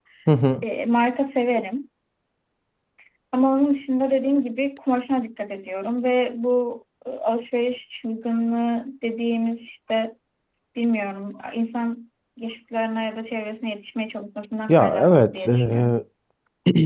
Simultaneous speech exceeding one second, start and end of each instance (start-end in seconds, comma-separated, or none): 14.7-15.9